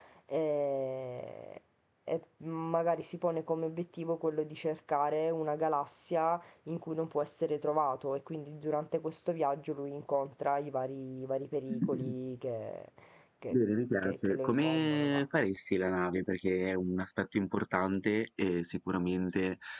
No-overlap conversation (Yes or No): No